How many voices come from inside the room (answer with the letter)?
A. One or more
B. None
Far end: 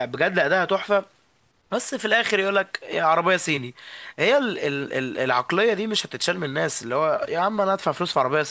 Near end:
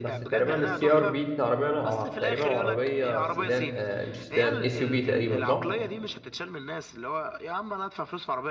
A